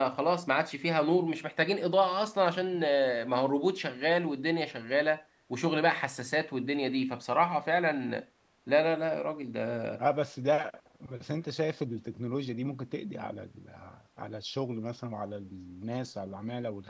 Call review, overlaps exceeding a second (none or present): none